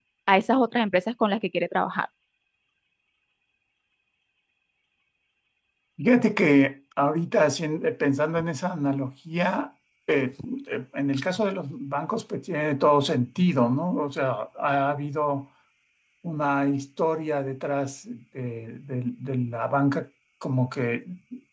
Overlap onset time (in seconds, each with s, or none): none